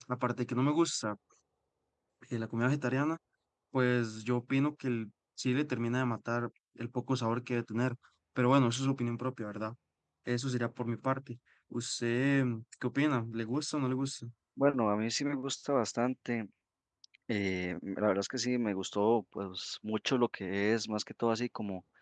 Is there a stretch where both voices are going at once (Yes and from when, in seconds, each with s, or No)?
No